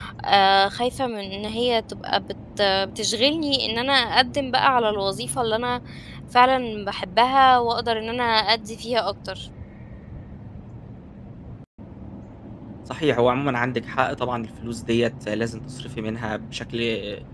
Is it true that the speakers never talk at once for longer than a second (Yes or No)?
Yes